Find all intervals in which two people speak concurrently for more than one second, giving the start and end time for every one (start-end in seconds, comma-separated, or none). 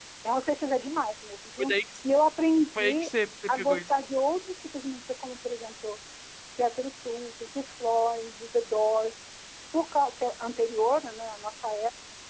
none